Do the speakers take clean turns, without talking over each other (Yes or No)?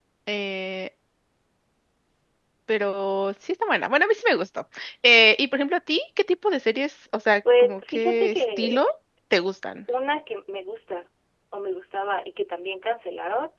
No